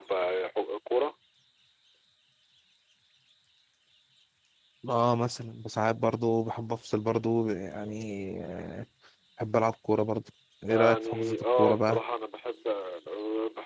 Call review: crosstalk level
present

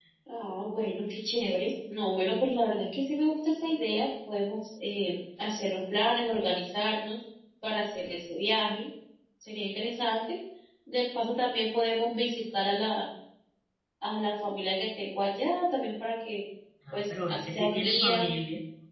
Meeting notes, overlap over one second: present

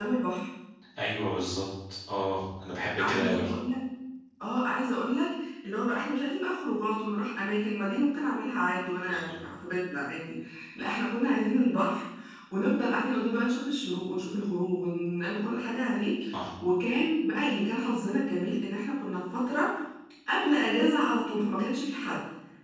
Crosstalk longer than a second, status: none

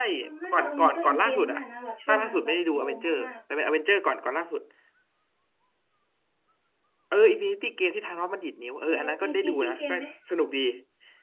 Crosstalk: present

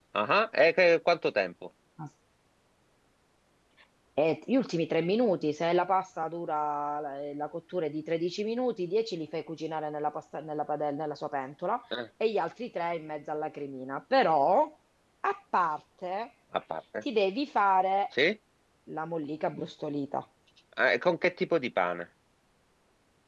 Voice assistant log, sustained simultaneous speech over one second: none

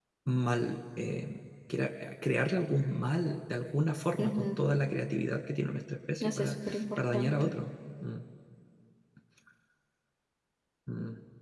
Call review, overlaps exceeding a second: present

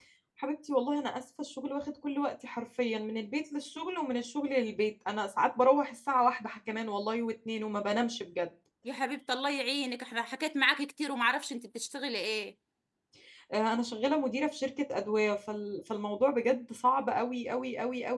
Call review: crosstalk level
none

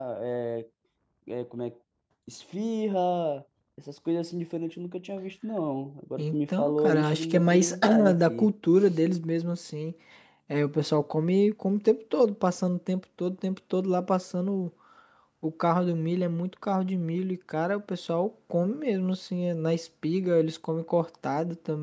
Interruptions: present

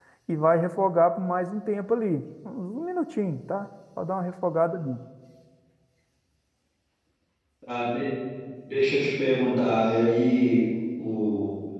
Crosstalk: none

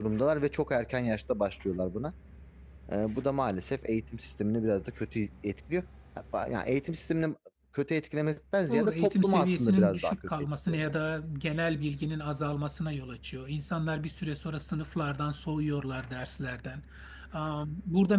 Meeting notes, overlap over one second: present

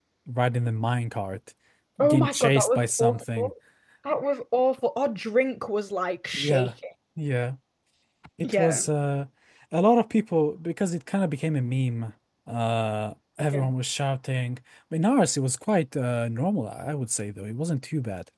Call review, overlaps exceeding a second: present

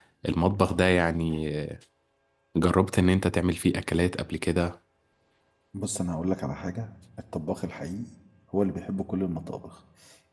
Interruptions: none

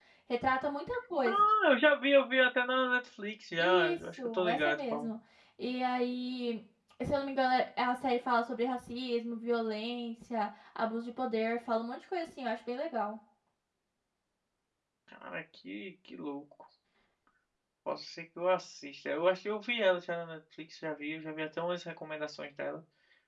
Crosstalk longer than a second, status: present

